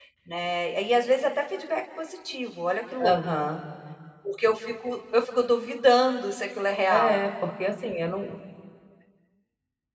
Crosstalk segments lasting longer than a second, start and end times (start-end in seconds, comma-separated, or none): none